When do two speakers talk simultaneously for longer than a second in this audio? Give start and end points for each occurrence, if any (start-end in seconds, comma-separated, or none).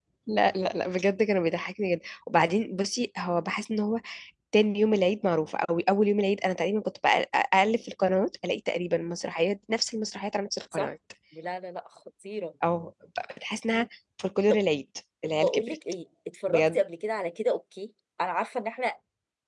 none